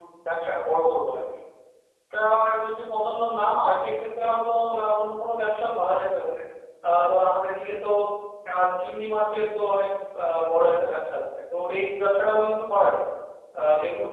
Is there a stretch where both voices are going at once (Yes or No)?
No